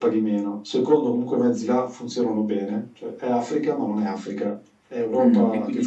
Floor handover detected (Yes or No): Yes